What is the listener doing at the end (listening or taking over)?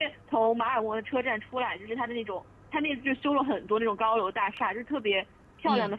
listening